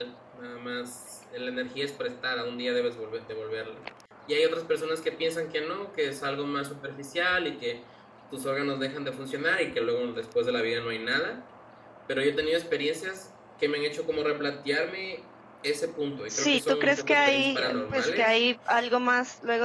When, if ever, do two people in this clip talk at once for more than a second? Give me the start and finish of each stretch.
16.3-18.3

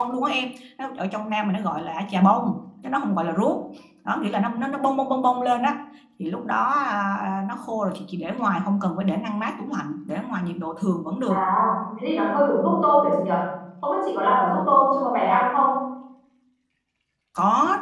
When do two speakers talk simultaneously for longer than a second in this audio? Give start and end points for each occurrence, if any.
none

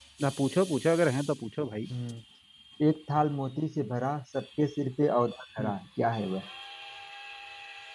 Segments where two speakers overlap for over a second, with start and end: none

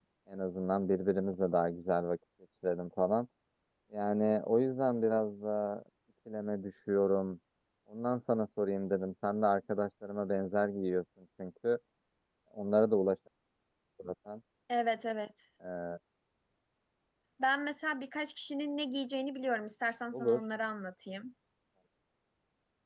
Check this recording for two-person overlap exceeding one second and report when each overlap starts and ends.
none

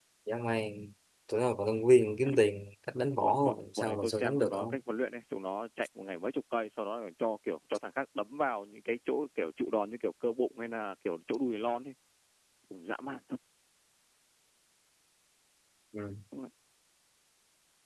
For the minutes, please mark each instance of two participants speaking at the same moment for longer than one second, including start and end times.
3.2-4.8

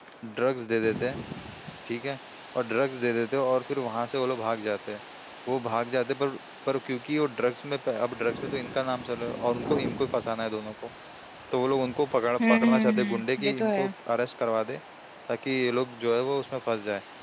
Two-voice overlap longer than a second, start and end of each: 12.5-13.9

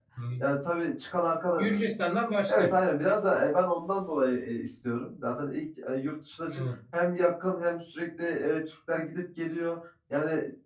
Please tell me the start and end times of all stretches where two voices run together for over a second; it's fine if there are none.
none

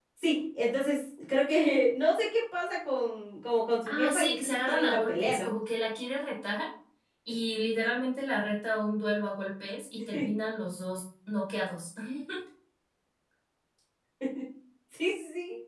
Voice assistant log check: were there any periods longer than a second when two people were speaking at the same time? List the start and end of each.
3.9-5.5

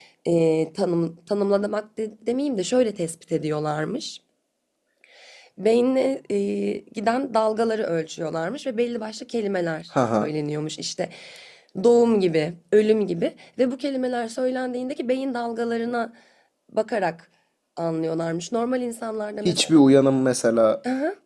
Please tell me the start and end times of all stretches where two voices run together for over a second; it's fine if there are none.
none

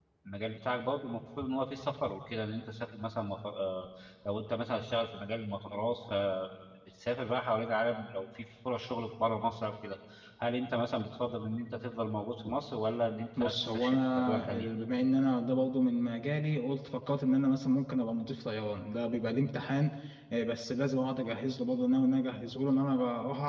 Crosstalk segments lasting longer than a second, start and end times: 13.4-14.7

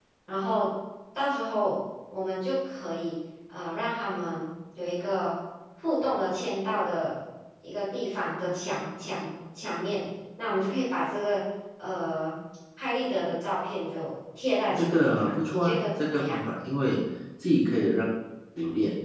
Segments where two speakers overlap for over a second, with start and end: 14.8-16.4

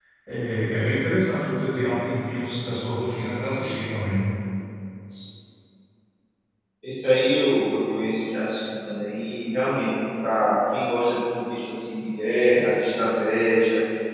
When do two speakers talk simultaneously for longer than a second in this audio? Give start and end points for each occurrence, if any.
none

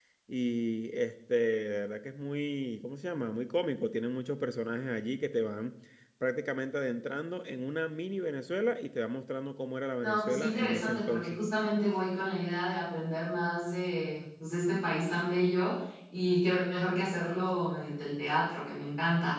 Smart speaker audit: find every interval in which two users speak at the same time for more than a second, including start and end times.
10.0-11.4

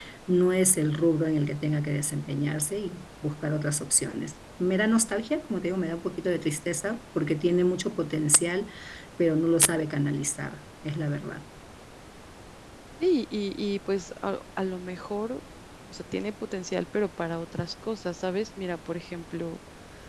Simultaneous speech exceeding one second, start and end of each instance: none

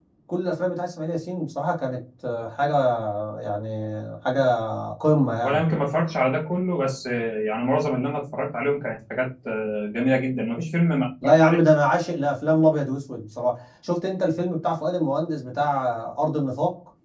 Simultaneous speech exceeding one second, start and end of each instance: none

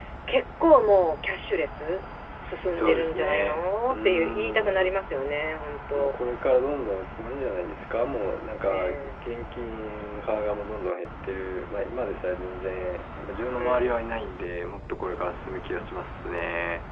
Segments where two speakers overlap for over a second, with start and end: 2.8-5.0

